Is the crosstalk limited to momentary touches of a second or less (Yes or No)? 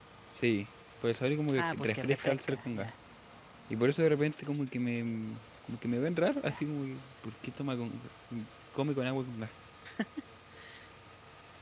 No